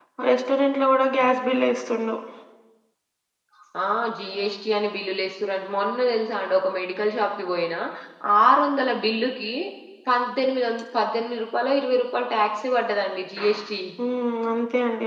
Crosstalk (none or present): none